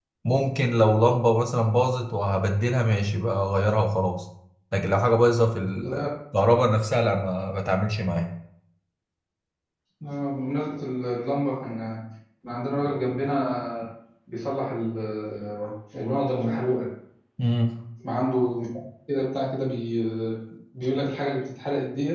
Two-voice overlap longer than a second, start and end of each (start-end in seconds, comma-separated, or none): none